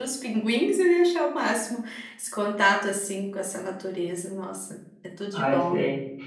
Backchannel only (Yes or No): No